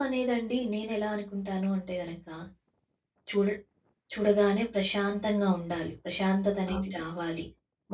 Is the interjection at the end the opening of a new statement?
No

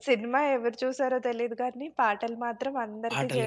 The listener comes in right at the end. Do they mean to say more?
Yes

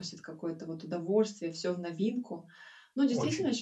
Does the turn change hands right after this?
No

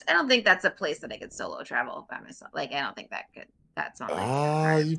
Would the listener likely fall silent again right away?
No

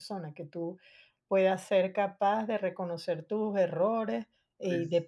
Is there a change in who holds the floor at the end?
No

